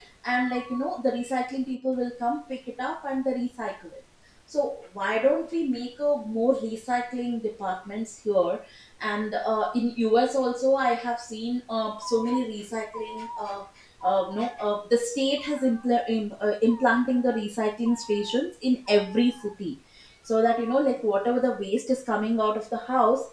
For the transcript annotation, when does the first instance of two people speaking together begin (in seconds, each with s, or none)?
none